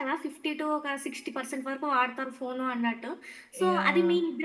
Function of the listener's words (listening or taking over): listening